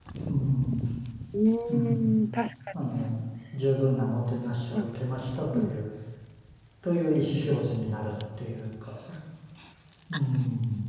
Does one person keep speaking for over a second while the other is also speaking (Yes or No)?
No